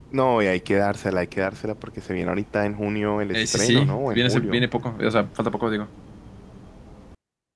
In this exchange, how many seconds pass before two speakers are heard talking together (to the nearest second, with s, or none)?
3 s